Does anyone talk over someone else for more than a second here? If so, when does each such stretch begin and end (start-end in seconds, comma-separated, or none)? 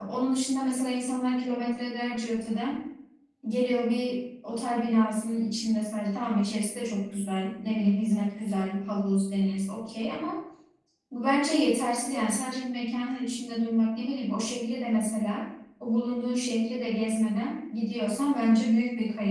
none